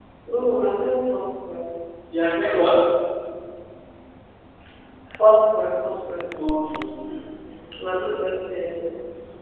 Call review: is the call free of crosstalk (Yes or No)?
Yes